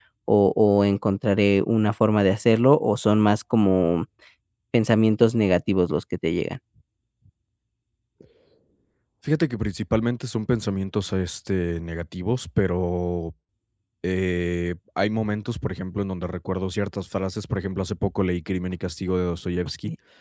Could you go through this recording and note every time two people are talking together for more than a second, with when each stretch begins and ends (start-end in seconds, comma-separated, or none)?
none